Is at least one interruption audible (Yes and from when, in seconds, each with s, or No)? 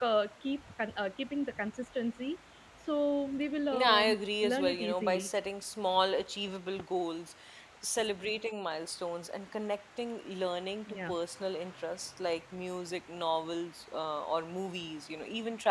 Yes, from 3.7 s